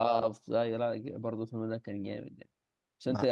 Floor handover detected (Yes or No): No